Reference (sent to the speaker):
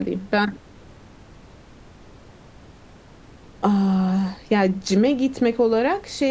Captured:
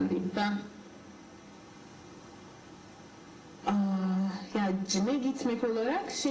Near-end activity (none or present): none